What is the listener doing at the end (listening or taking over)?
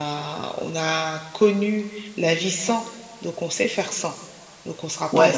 taking over